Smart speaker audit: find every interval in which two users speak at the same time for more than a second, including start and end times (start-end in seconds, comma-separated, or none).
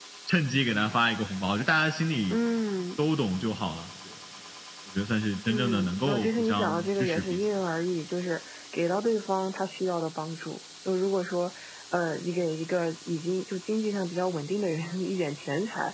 5.5-7.4